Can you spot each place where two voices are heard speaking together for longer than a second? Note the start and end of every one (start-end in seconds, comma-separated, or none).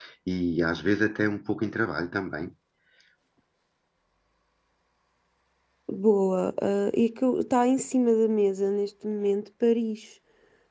none